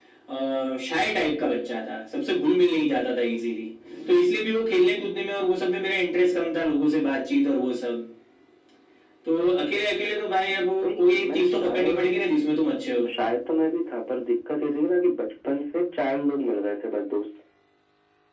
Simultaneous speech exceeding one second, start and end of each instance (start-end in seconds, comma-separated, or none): 10.5-12.2